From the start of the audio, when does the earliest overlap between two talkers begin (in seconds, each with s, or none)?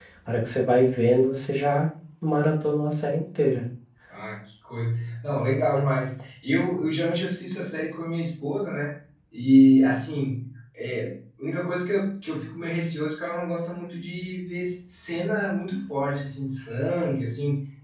none